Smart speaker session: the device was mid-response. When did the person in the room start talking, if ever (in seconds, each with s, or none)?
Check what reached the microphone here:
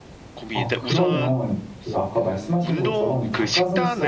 0.5 s